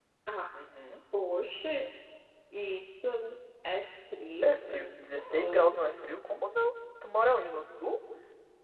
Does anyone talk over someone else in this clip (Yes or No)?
Yes